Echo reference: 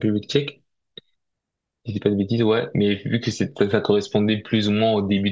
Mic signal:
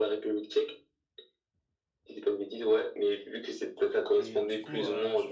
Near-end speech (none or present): present